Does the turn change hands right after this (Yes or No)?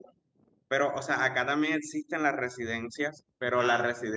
No